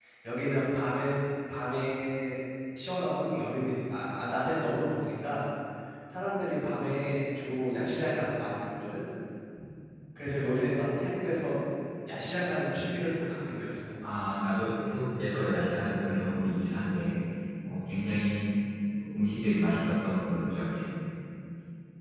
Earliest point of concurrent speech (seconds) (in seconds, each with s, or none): none